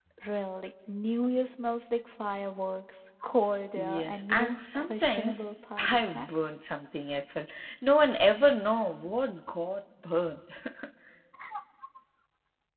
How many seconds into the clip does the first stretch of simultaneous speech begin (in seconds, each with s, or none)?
3.8 s